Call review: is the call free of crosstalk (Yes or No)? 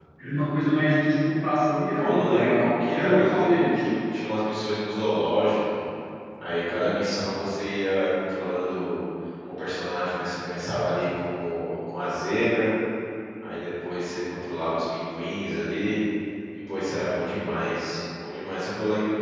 No